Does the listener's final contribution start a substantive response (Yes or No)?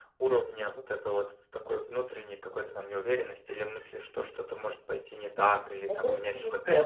Yes